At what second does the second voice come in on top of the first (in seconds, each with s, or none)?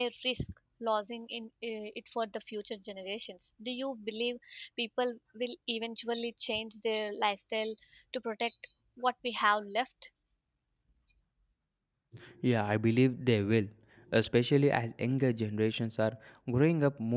none